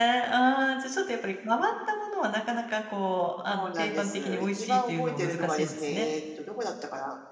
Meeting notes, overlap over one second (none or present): present